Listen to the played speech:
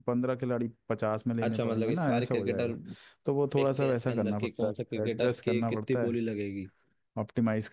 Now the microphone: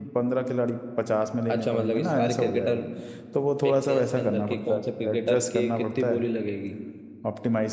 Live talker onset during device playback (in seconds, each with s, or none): none